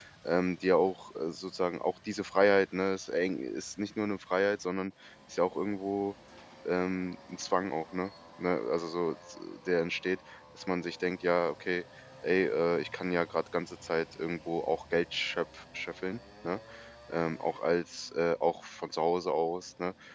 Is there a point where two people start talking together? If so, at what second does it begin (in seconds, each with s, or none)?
none